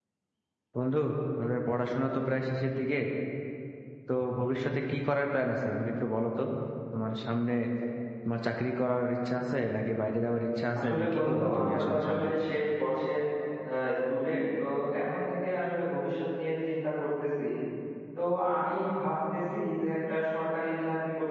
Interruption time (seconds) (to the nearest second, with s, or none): 11 s